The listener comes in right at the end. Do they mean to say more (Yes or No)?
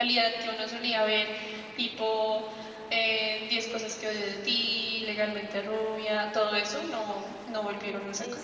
Yes